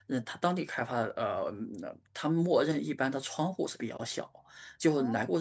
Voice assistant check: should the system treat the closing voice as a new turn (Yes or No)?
No